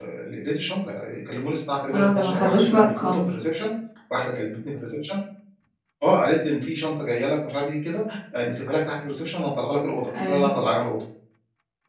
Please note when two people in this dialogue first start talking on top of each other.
1.9 s

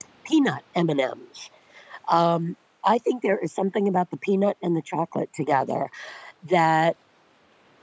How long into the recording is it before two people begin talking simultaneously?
none

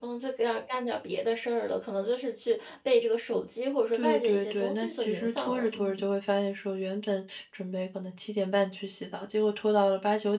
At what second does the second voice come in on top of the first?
3.9 s

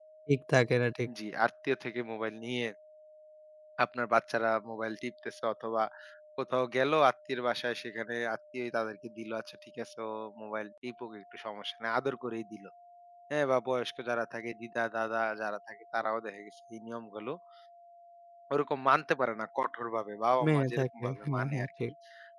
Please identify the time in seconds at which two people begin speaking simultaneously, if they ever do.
20.4 s

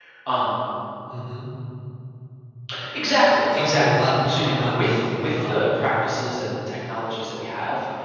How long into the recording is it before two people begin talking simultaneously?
3.5 s

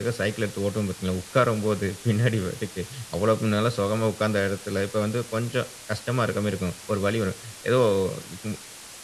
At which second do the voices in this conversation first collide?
none

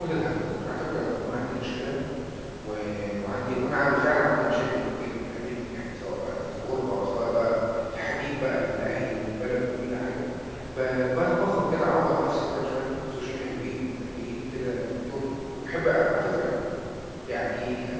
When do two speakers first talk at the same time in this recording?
none

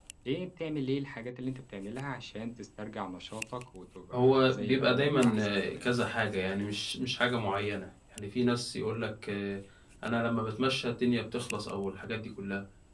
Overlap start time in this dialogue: 4.1 s

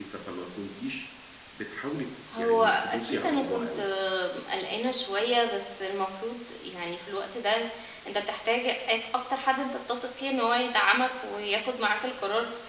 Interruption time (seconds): 2.4 s

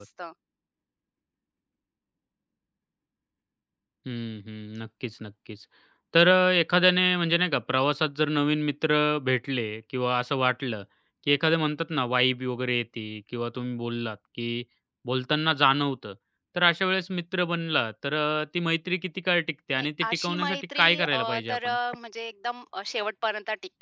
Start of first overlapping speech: 19.7 s

